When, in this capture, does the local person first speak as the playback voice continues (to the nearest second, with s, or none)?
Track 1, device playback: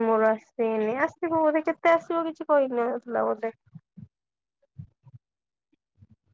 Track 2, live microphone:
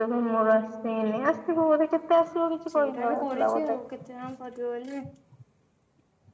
3 s